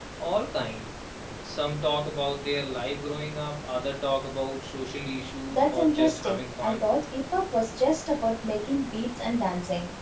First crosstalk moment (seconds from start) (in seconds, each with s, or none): 5.5 s